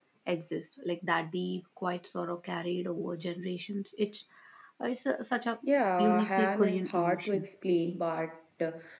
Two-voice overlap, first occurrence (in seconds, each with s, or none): 6.0 s